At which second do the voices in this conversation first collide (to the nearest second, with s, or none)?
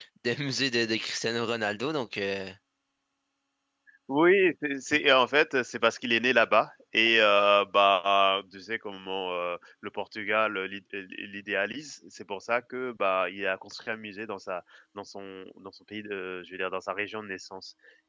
none